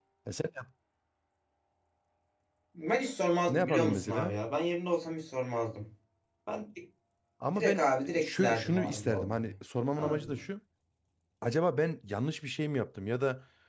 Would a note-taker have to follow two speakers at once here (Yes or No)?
Yes